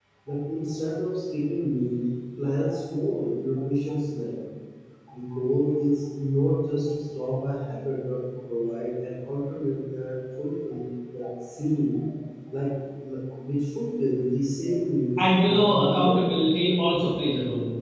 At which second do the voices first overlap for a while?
15.2 s

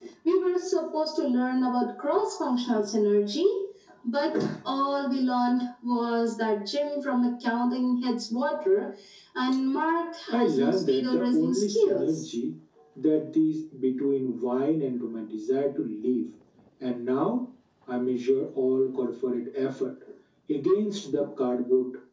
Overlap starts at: 10.3 s

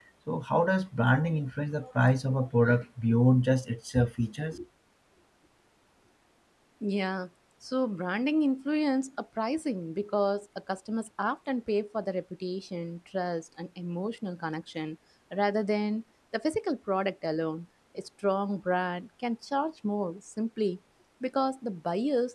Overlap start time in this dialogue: none

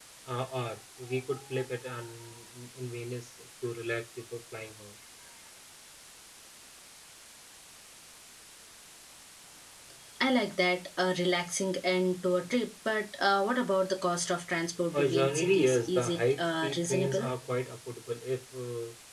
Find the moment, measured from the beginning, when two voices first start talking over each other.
14.9 s

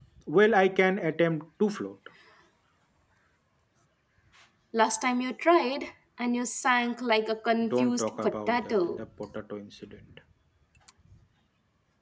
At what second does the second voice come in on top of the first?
7.6 s

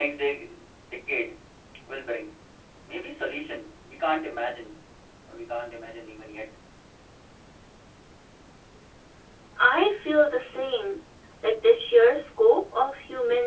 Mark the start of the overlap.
none

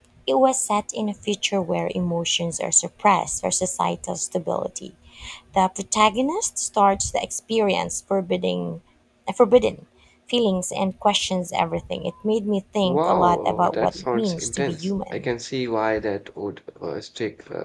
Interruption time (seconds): 12.8 s

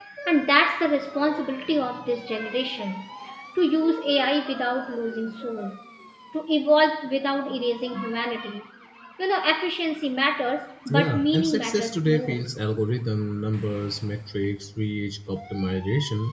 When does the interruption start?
10.9 s

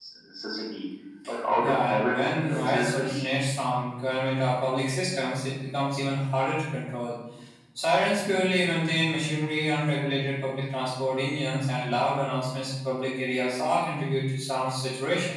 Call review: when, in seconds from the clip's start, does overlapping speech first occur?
1.6 s

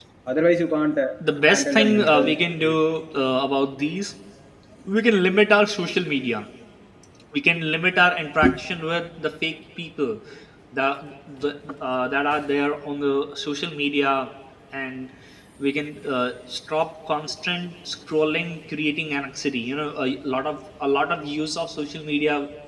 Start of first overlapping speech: 1.4 s

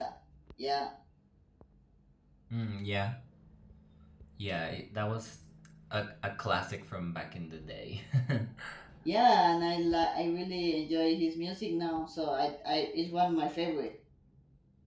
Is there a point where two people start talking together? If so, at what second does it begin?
none

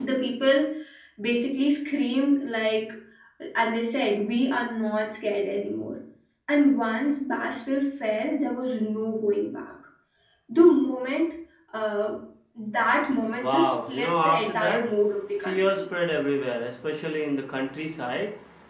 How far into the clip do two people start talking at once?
13.4 s

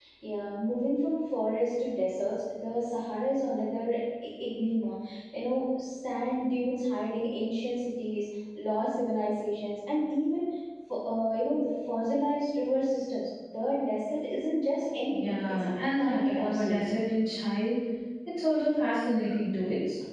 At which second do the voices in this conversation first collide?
15.1 s

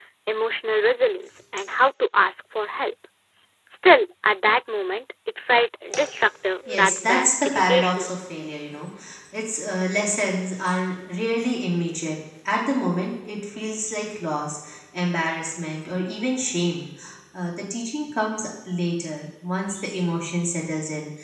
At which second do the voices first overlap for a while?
6.7 s

